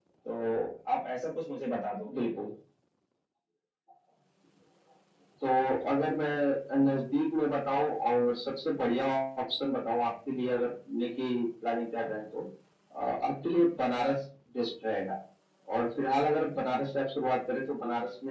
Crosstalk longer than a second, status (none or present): none